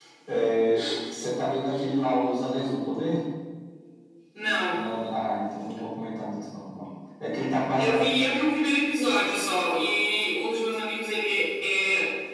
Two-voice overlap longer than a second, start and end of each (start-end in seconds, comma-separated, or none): none